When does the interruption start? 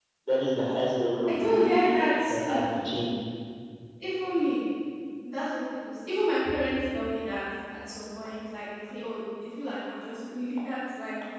1.3 s

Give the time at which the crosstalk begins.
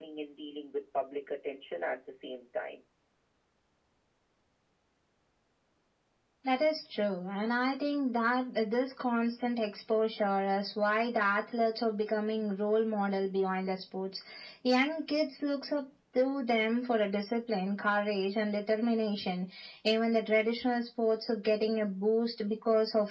none

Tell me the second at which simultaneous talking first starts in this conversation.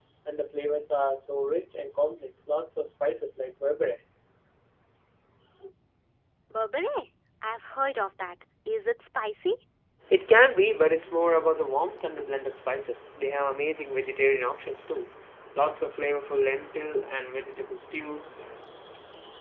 none

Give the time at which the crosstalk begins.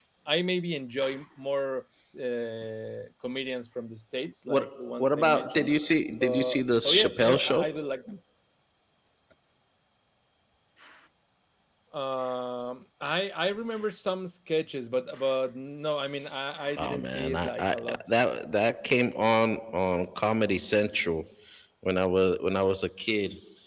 4.5 s

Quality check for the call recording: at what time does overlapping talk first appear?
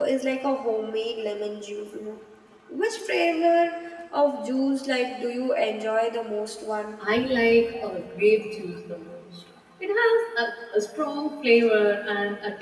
none

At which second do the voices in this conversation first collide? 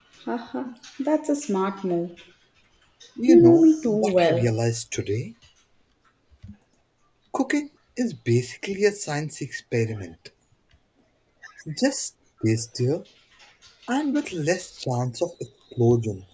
3.2 s

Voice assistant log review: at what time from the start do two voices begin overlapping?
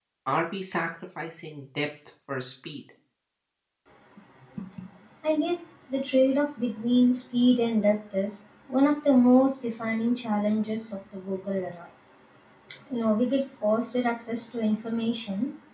none

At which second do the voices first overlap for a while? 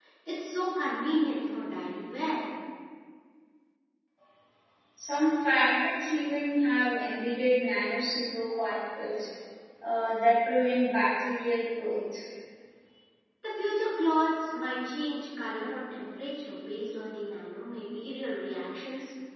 none

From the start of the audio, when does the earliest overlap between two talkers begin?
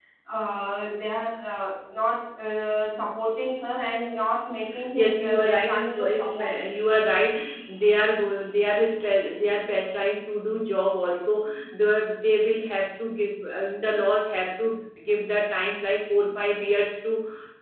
5.0 s

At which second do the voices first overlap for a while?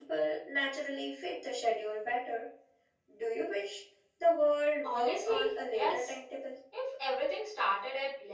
4.8 s

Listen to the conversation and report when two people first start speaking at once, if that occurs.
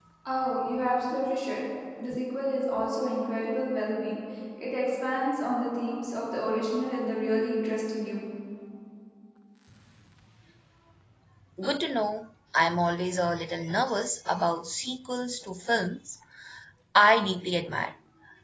none

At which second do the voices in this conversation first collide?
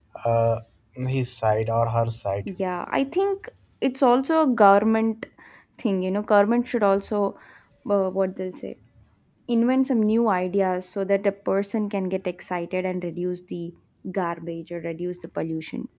none

